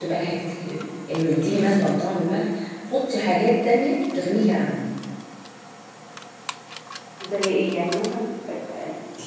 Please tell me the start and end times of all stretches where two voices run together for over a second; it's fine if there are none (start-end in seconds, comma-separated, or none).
none